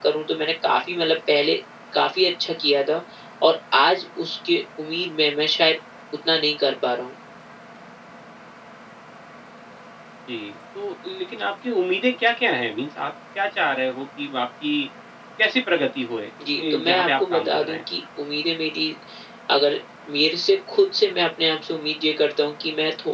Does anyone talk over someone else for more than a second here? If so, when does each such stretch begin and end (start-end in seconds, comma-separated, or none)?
16.6-17.8